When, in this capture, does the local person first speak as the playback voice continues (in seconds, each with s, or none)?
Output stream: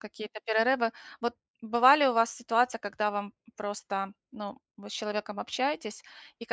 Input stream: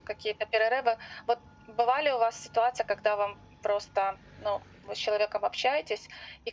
none